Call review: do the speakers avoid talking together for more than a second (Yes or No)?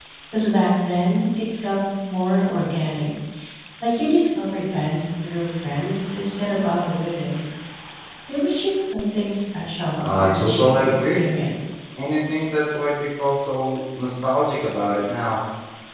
No